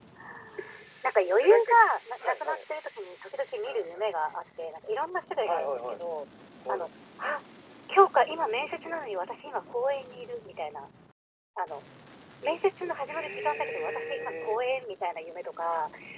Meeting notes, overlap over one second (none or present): present